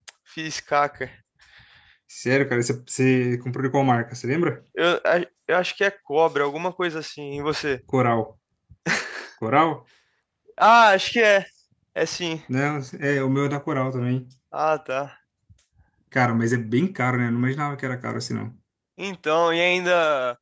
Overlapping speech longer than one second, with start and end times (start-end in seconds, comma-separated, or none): none